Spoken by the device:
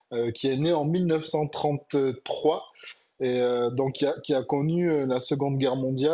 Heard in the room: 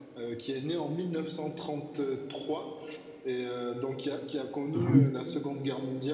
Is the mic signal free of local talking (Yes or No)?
No